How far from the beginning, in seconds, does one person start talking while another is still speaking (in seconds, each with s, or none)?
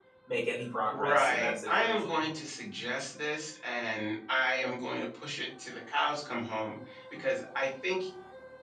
0.9 s